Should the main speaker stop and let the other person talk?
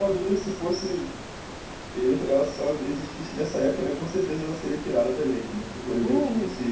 No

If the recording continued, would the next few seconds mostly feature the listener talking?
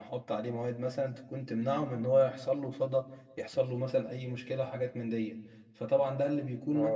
Yes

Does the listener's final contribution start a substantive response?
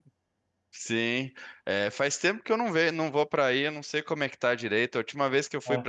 No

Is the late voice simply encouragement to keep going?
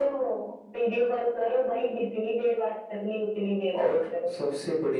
No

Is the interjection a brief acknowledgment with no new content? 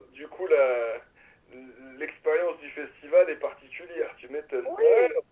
No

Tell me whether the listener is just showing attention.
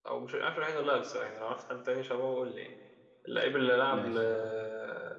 Yes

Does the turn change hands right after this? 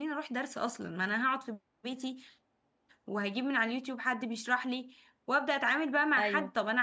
No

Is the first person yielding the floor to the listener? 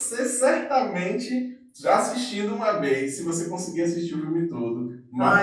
No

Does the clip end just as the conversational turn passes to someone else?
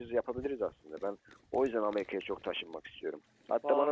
No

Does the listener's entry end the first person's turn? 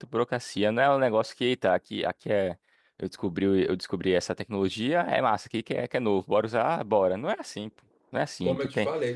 Yes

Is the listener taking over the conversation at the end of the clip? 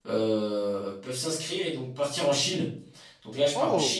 No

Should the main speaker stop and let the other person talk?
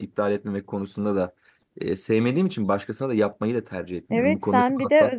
Yes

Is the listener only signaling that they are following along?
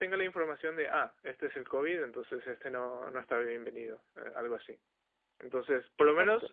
Yes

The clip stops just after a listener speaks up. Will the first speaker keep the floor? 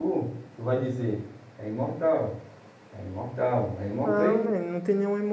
No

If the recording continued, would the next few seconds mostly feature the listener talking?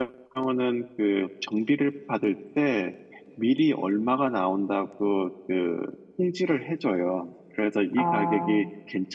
No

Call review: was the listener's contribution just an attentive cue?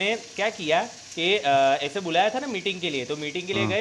Yes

